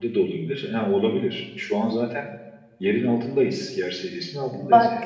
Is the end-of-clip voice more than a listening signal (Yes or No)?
Yes